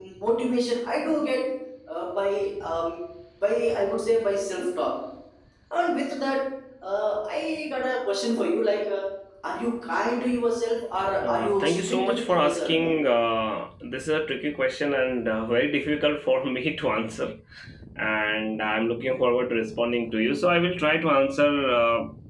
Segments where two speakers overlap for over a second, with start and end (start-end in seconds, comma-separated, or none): 11.2-12.7